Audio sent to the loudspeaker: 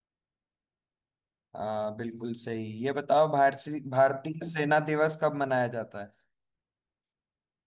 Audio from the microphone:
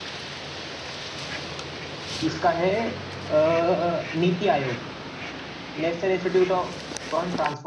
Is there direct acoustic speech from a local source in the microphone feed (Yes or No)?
Yes